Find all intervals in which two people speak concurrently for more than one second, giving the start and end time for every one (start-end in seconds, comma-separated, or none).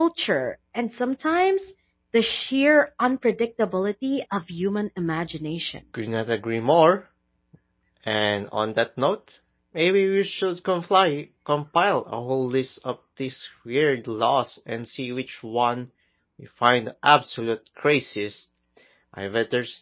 none